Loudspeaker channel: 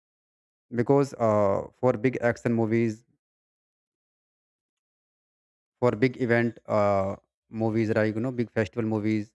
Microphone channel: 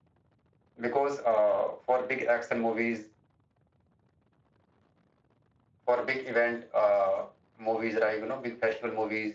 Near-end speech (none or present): none